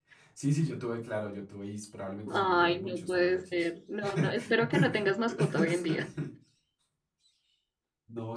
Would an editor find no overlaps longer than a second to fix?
No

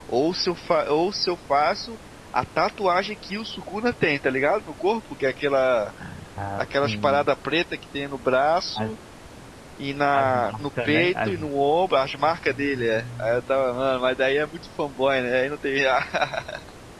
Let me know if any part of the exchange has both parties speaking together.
Yes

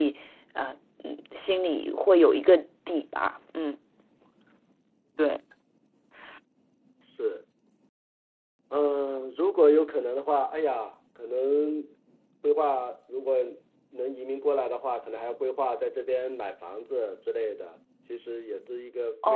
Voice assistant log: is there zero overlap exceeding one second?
Yes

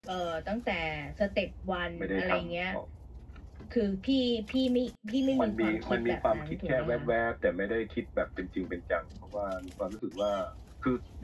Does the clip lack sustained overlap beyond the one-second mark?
No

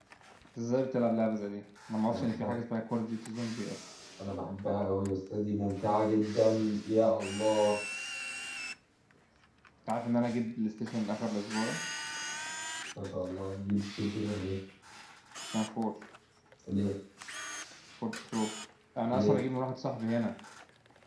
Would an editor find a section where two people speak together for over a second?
No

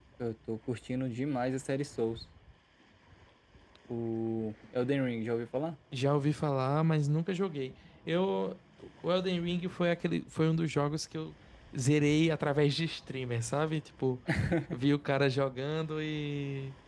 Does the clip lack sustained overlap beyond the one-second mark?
Yes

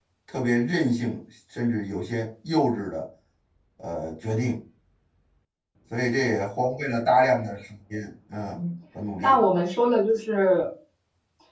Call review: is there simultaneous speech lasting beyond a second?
No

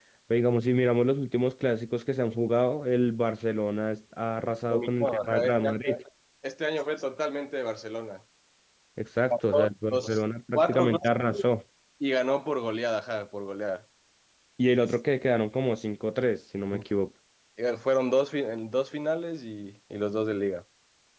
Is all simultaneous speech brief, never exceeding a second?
No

